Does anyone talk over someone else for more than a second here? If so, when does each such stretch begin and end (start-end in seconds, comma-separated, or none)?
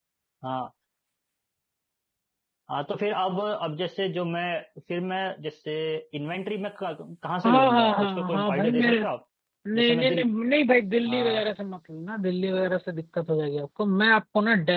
7.4-8.9